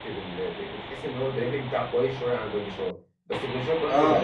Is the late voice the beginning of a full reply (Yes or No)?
Yes